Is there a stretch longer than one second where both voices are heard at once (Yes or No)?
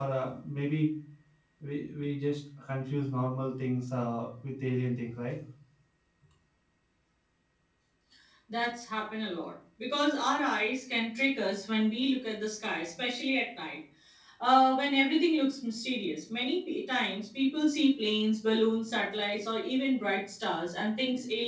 No